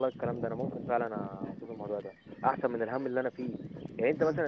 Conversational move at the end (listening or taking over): listening